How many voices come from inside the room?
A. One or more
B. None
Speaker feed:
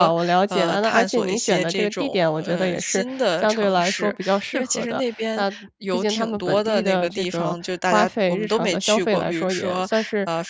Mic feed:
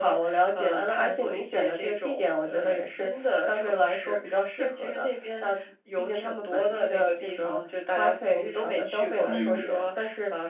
A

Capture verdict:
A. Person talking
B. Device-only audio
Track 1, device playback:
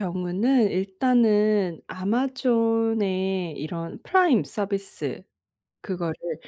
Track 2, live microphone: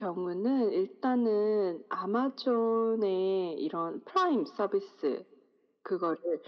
B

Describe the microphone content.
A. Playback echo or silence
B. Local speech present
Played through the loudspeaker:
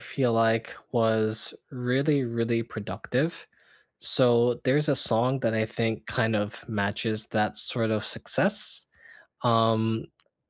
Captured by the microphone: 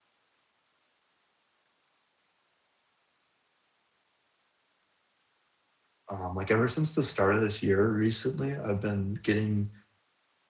B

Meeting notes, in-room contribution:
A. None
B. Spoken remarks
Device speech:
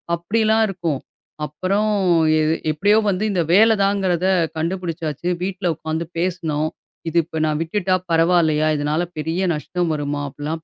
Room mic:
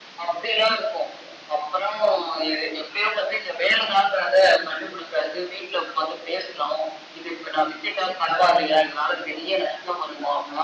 A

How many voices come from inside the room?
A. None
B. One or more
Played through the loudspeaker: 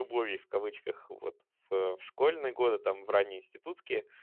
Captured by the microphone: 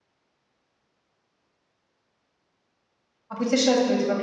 B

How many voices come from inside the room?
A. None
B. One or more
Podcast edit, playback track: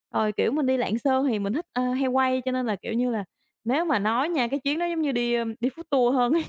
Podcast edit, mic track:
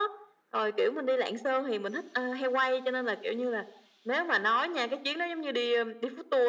A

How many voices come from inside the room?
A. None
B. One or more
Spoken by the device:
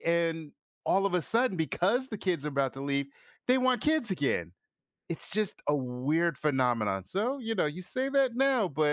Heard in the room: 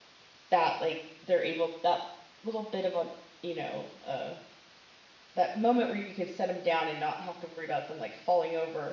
B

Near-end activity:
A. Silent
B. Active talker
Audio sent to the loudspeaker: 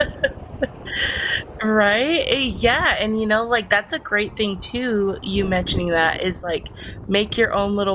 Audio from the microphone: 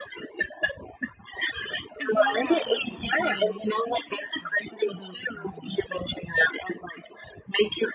B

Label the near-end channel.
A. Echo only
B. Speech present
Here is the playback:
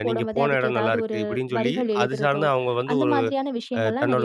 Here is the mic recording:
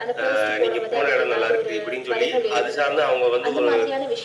A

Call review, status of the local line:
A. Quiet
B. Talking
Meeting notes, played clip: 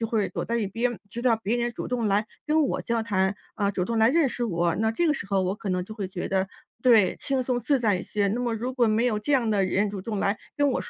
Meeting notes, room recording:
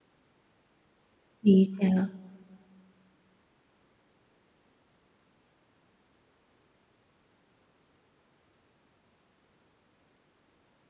B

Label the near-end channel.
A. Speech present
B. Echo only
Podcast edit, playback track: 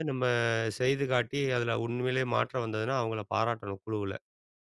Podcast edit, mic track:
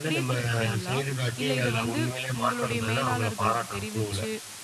A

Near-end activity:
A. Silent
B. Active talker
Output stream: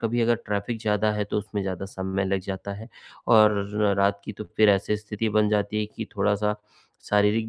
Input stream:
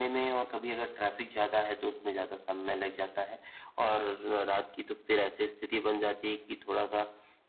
A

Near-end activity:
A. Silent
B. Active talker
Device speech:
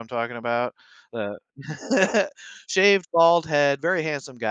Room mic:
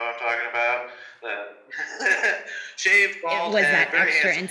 B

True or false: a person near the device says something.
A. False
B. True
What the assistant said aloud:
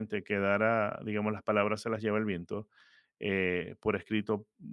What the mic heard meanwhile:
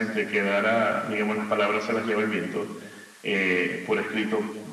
A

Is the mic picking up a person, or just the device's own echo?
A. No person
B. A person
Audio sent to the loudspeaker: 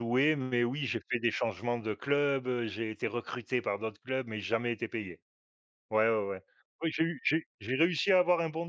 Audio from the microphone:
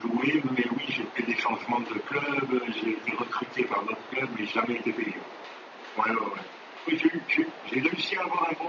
A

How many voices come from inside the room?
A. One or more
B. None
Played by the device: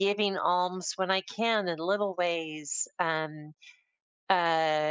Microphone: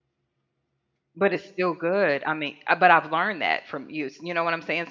A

